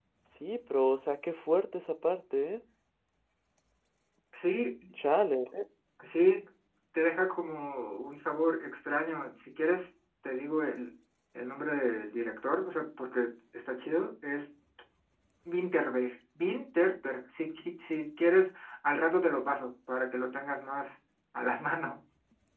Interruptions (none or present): none